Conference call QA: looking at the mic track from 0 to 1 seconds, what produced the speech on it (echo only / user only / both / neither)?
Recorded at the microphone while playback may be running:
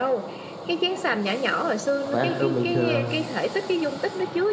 echo only